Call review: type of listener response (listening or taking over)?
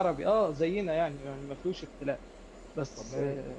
listening